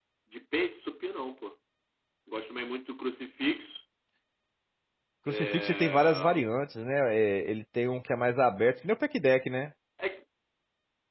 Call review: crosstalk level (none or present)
present